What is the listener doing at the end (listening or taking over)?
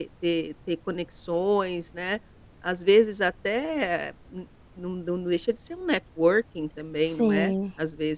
listening